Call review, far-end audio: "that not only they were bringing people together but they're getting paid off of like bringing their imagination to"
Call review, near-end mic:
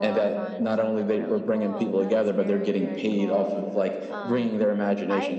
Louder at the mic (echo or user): echo